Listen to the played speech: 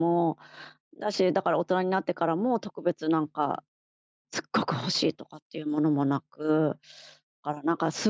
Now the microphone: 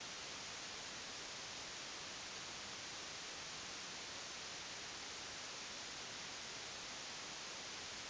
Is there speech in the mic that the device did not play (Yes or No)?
No